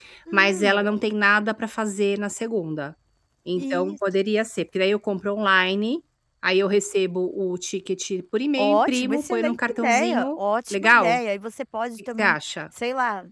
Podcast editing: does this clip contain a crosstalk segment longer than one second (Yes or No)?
Yes